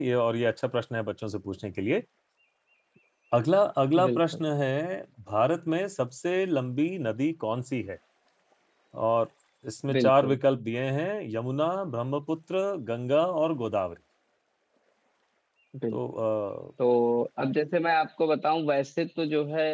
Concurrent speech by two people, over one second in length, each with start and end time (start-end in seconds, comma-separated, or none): none